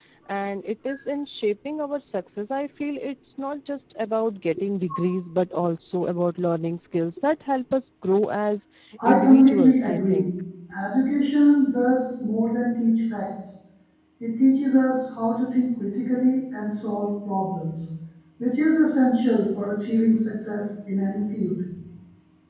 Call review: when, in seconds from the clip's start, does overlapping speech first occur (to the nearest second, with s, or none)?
9 s